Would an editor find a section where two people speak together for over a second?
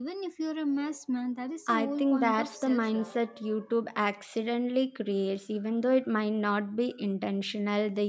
Yes, from 1.7 s

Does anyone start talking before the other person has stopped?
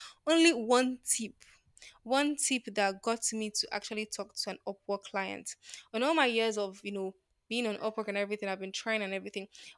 No

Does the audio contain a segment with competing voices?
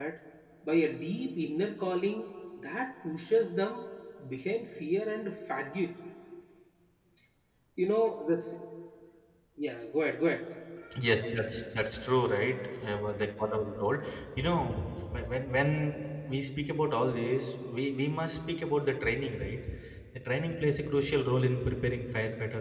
No

